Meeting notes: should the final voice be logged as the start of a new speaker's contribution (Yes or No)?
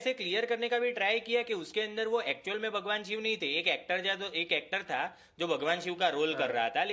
No